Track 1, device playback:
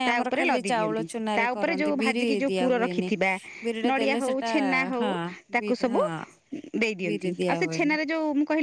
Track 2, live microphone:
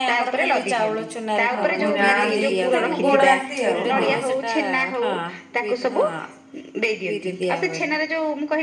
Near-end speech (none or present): present